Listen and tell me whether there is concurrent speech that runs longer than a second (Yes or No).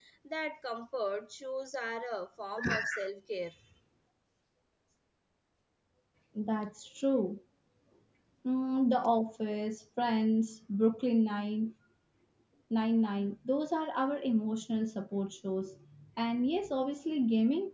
No